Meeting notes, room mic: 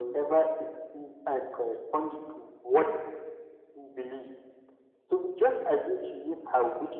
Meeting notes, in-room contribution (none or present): none